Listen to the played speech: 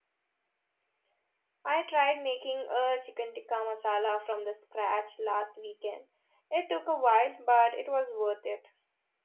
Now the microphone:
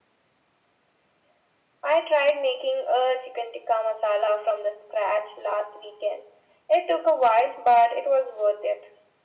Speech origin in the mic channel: echo only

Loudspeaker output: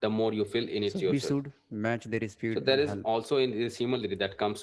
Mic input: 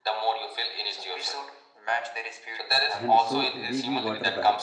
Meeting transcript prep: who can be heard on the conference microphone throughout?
both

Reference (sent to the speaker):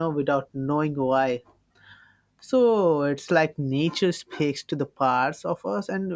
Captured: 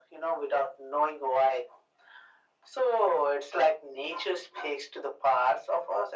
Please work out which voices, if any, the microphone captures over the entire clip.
echo only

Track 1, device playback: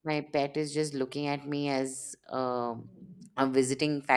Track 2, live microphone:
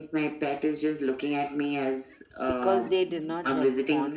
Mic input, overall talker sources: both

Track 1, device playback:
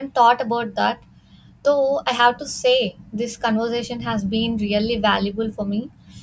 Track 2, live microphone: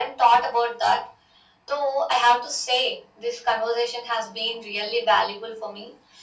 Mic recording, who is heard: echo only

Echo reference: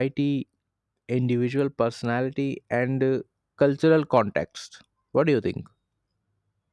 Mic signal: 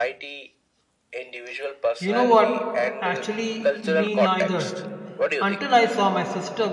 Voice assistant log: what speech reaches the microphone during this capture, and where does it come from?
both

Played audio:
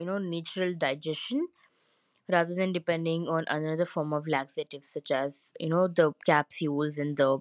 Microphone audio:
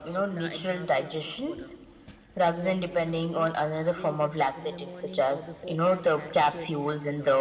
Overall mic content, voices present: both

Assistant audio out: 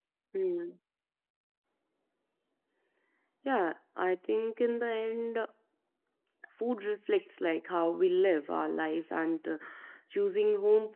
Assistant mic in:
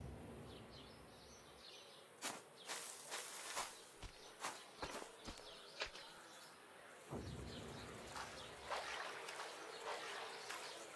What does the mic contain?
neither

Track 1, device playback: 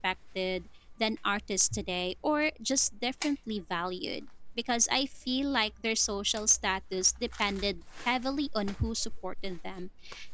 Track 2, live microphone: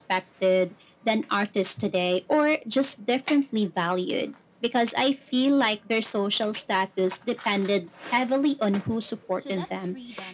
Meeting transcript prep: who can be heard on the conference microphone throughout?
both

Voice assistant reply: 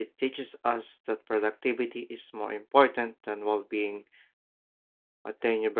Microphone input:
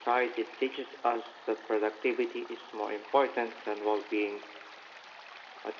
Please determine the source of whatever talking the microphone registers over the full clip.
echo only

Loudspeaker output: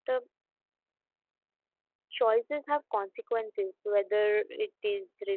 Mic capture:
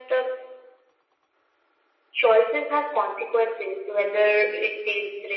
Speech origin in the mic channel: echo only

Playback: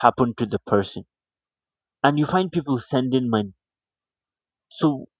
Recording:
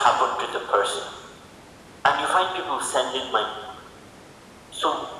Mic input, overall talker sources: echo only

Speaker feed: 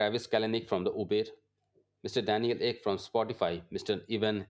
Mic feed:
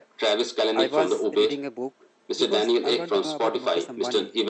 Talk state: both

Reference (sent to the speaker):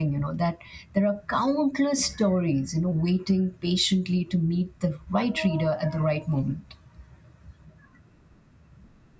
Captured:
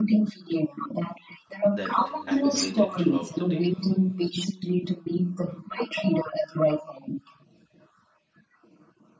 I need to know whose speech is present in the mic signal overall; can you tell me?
both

